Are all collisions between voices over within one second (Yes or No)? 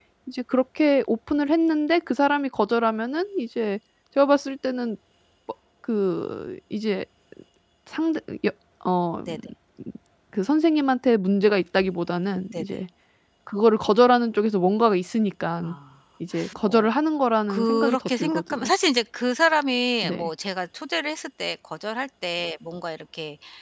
No